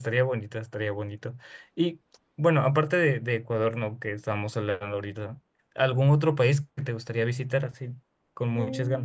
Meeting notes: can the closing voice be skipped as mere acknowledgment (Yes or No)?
No